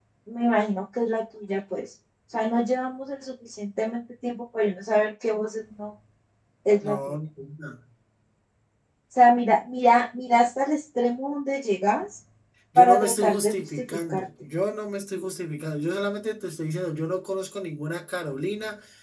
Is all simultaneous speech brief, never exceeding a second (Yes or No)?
No